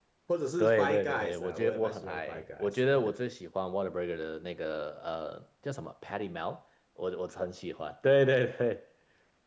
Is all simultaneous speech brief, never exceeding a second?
No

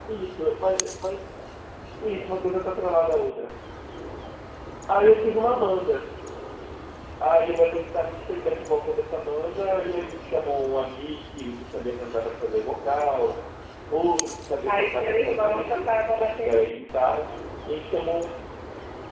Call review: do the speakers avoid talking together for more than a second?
No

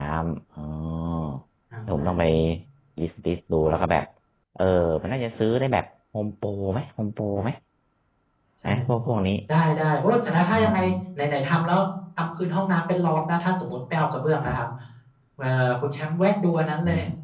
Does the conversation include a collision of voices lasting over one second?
No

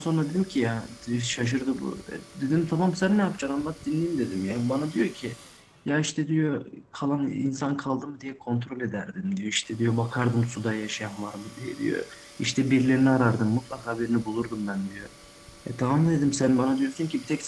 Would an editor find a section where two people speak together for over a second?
No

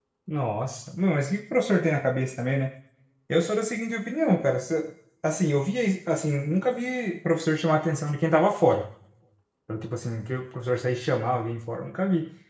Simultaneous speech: No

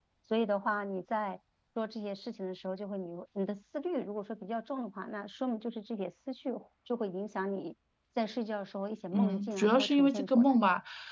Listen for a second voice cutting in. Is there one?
Yes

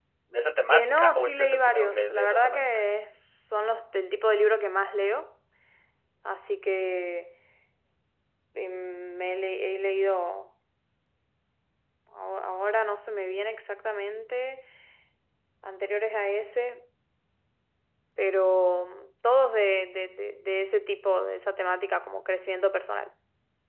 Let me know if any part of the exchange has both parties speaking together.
Yes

